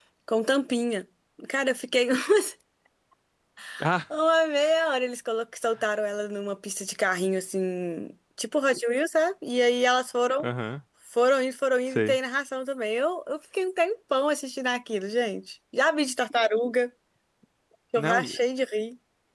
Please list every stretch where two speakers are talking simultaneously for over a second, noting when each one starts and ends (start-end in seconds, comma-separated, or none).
none